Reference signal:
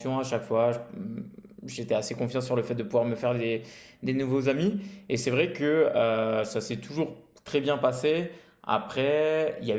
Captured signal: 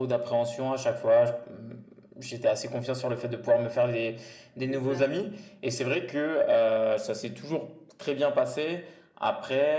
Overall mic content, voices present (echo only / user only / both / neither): both